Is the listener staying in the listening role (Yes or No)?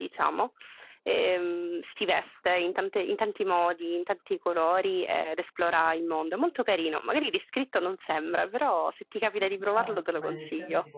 No